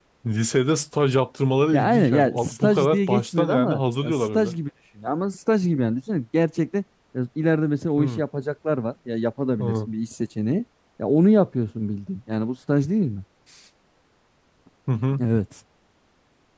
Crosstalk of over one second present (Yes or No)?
Yes